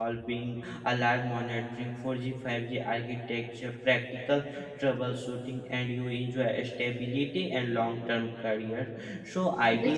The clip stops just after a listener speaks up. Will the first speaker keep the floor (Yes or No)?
Yes